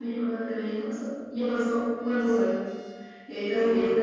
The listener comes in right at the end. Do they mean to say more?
No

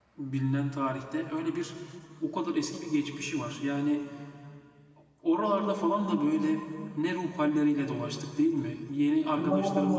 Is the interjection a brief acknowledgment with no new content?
Yes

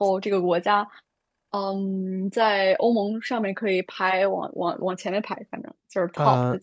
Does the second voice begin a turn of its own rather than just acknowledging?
Yes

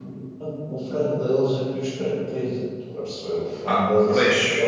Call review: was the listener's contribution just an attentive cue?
No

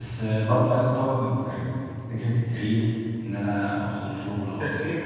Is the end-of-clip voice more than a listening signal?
No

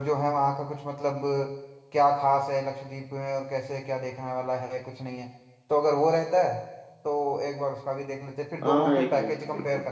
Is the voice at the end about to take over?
Yes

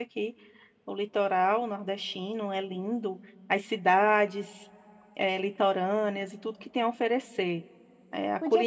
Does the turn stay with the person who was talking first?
No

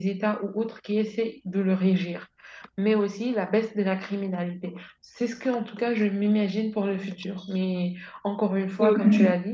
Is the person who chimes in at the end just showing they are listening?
Yes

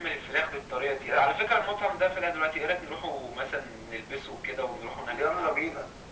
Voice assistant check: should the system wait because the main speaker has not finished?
No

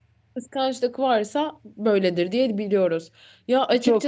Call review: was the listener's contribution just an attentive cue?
No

